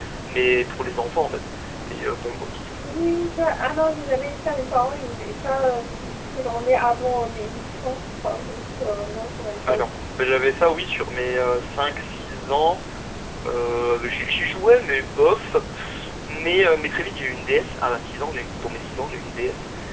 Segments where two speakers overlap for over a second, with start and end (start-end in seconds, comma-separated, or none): none